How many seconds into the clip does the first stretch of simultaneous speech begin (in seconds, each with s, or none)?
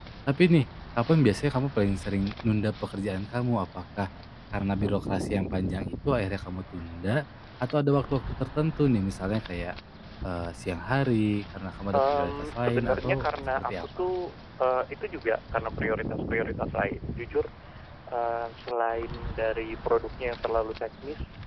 11.9 s